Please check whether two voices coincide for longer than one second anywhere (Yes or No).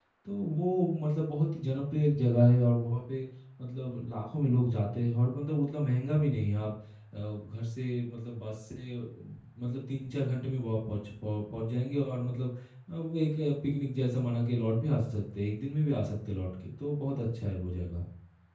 No